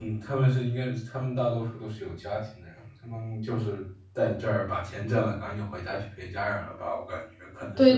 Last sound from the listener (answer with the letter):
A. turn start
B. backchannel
A